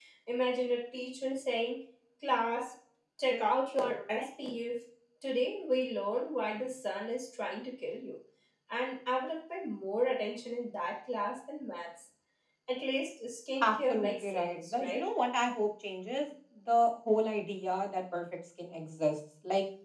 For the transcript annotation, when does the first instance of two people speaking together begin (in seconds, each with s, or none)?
13.6 s